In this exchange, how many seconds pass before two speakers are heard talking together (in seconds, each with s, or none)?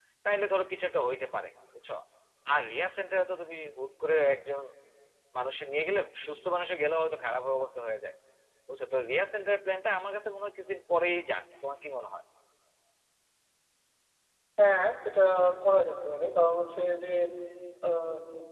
none